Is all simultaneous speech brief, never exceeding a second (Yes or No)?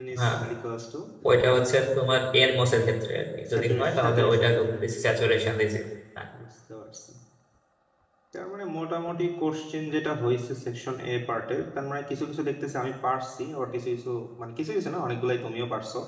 No